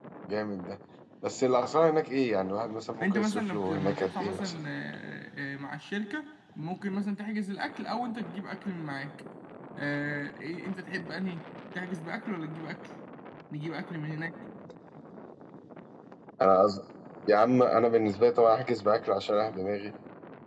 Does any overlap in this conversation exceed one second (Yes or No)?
Yes